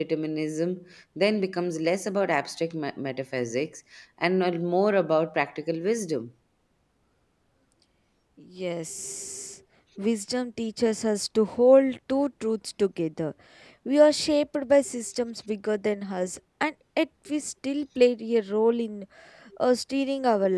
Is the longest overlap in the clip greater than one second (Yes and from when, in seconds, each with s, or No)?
No